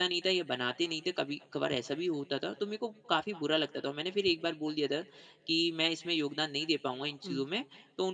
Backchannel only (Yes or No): Yes